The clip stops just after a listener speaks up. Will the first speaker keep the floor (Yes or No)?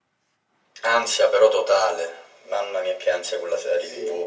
No